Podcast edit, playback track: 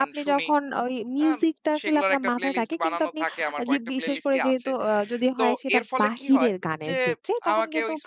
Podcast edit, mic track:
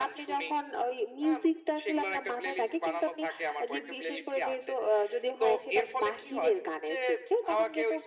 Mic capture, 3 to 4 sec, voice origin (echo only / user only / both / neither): echo only